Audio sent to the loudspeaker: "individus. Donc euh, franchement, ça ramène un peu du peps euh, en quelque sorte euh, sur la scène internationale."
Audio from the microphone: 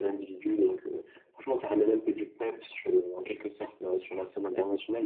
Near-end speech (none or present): none